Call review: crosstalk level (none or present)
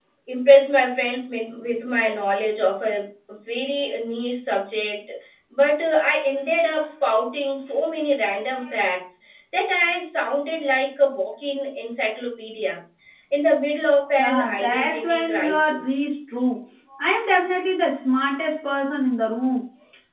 present